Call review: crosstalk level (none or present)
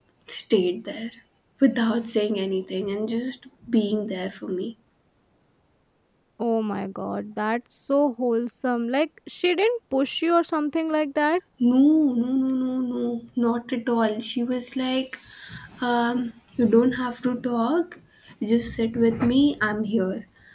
none